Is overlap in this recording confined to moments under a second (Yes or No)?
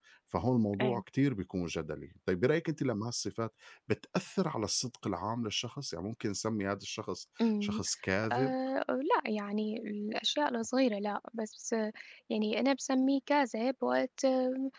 Yes